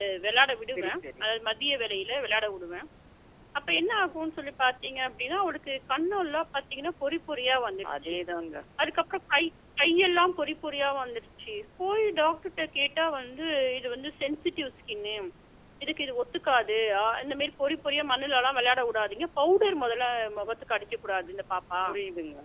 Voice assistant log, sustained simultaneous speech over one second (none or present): none